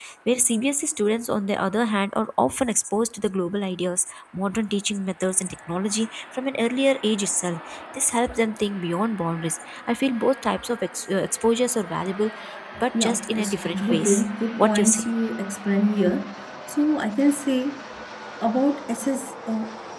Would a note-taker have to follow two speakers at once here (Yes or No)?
Yes